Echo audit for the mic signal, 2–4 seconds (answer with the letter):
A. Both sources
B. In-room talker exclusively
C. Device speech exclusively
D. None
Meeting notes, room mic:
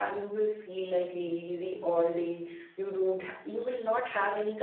C